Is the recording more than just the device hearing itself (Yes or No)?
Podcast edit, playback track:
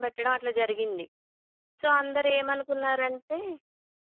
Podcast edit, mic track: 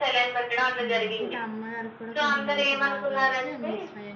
Yes